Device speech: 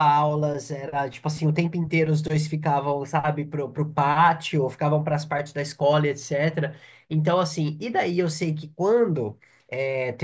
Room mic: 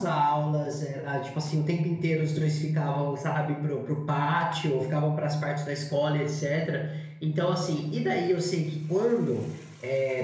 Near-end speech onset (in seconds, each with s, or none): none